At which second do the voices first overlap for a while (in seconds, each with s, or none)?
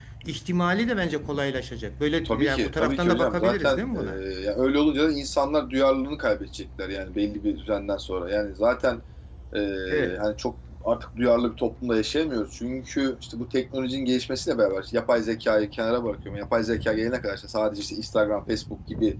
2.2 s